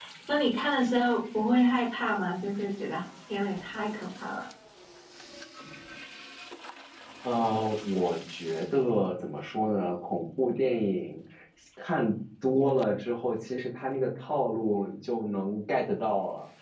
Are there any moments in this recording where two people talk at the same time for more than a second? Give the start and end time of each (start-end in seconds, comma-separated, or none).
none